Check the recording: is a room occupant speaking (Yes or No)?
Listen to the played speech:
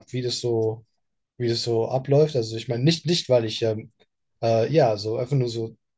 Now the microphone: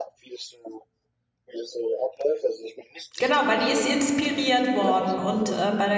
Yes